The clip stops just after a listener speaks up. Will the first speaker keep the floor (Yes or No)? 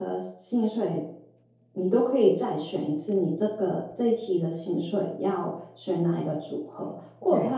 Yes